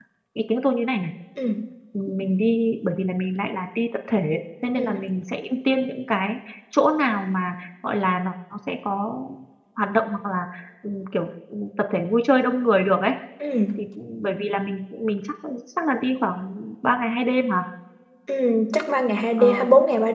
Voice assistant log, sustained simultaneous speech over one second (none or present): none